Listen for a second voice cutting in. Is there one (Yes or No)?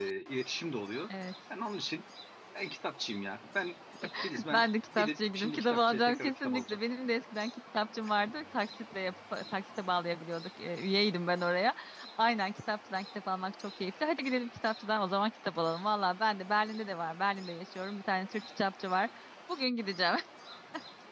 Yes